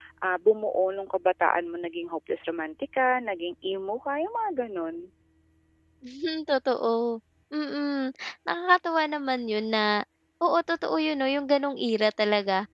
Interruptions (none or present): none